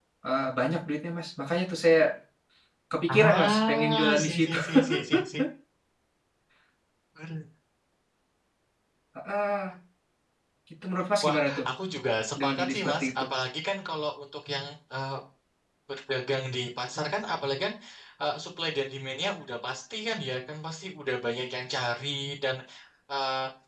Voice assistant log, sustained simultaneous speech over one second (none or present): present